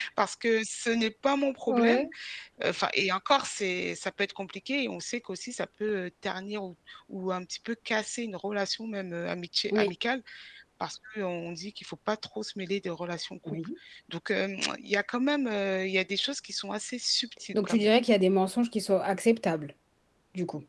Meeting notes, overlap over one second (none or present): none